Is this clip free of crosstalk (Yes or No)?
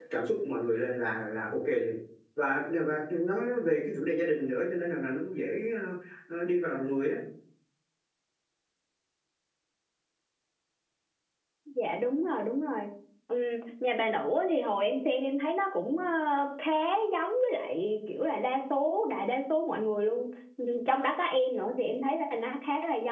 Yes